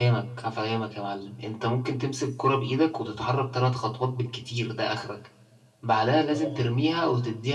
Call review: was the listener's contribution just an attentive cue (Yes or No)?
Yes